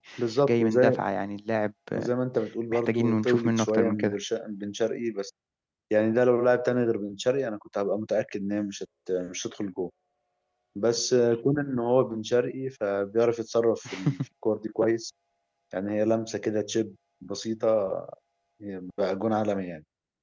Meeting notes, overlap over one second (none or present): present